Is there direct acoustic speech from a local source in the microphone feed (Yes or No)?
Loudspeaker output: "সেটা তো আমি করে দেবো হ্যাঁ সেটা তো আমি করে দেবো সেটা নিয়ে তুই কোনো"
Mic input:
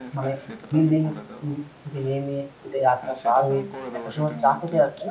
Yes